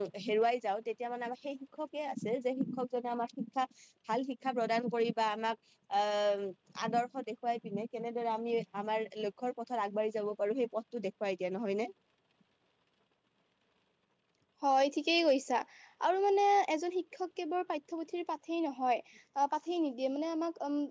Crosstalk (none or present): none